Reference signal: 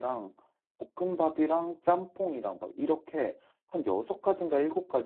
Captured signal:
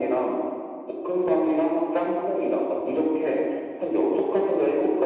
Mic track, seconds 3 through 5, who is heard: echo only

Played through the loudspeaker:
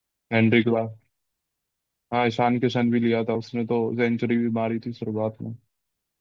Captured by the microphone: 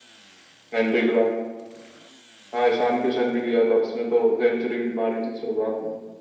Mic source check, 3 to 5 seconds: echo only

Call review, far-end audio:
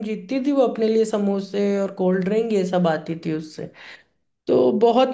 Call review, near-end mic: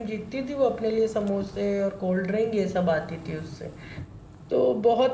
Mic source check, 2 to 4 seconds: echo only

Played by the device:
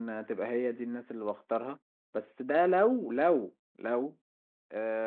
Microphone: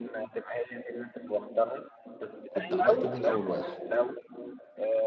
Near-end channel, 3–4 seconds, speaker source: both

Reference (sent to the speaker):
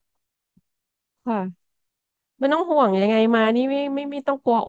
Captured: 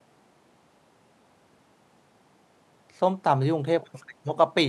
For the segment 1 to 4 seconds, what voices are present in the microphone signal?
user only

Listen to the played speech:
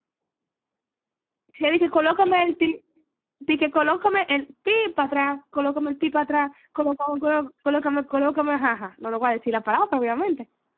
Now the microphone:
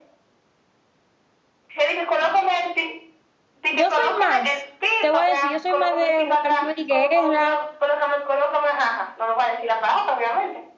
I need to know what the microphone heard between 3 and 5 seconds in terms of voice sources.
both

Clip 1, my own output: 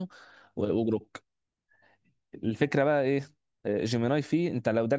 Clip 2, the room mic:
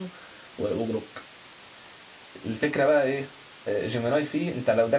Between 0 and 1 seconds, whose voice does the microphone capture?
echo only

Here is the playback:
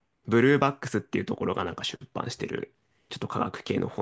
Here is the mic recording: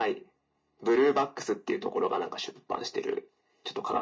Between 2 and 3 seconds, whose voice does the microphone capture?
echo only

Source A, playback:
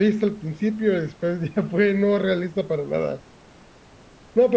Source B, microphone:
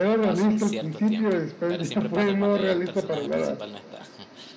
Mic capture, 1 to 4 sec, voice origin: both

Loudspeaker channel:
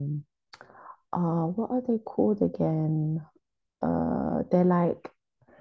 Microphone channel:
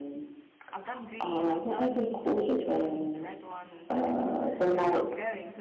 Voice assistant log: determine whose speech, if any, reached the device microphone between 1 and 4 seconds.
both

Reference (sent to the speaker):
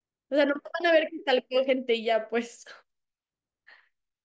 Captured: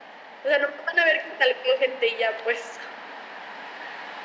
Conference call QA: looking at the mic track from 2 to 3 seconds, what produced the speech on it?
echo only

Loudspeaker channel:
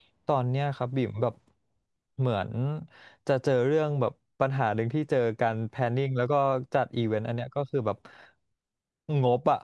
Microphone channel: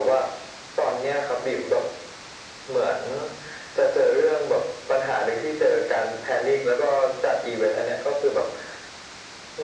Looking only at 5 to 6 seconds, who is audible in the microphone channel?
echo only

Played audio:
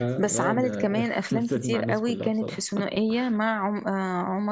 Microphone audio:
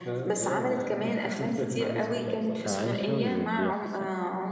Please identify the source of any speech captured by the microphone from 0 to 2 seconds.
echo only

